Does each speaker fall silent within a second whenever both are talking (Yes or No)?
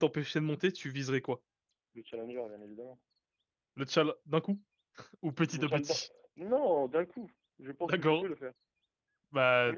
Yes